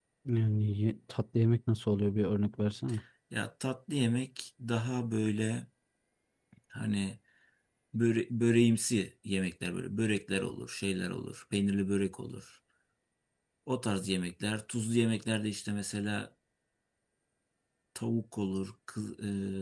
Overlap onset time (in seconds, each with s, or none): none